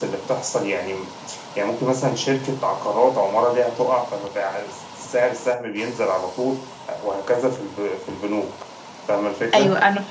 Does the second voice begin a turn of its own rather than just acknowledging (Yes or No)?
Yes